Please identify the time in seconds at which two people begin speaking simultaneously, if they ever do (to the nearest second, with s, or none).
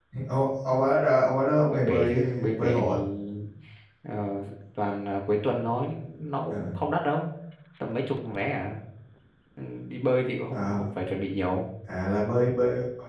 1 s